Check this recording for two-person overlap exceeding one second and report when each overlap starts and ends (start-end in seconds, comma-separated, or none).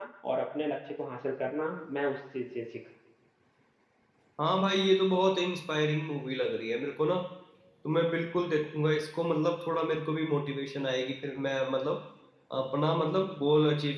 none